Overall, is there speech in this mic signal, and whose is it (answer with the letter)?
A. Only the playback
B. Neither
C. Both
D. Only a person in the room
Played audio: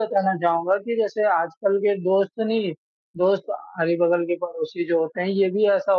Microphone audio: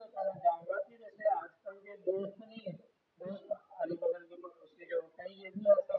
A